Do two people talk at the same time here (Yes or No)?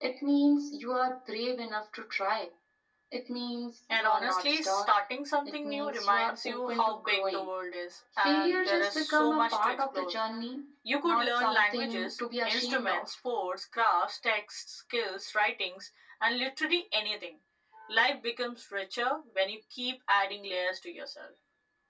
Yes